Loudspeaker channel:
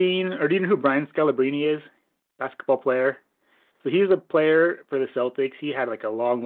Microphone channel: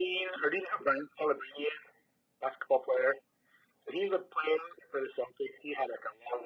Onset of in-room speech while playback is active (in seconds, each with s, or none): none